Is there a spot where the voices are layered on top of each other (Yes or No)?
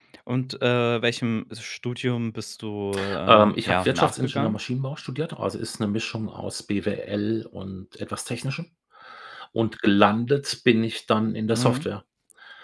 Yes